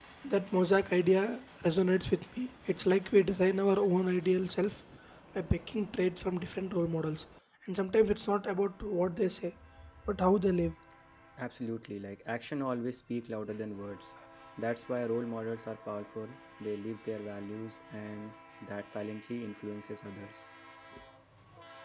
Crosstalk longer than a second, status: none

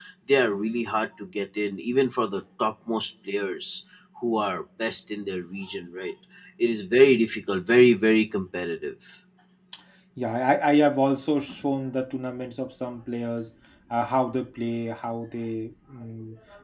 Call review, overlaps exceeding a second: none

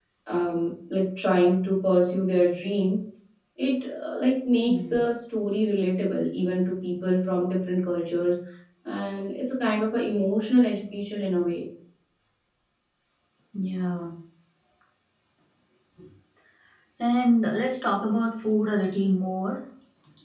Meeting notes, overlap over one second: none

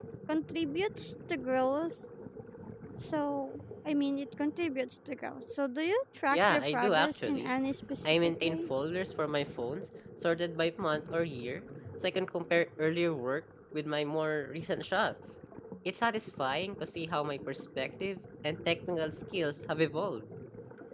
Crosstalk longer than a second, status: present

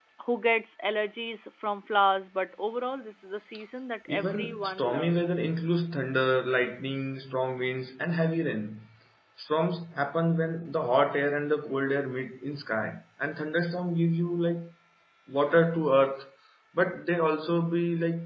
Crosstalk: present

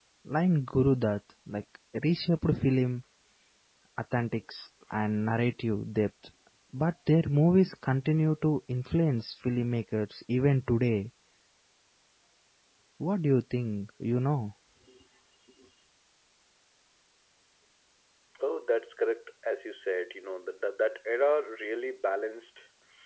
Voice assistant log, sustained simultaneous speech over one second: none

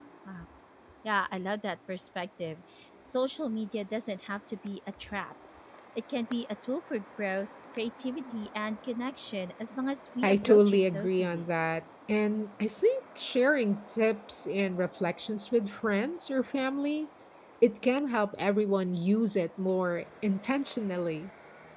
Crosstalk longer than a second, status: present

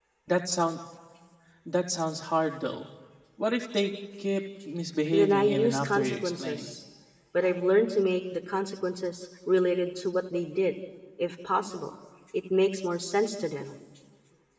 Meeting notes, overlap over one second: present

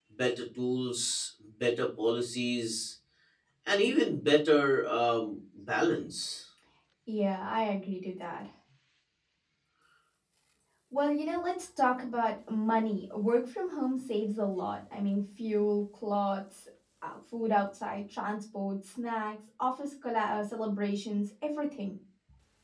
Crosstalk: none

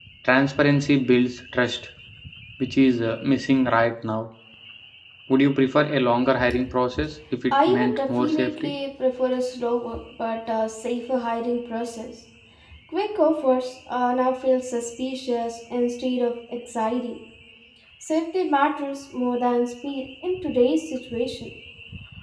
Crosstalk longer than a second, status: present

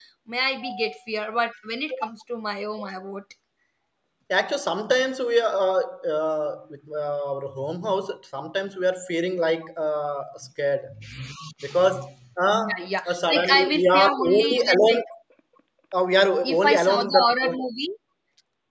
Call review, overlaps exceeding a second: present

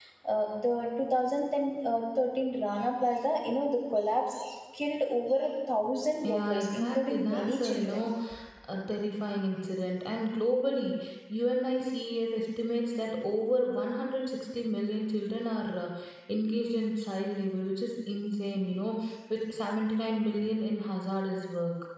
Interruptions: present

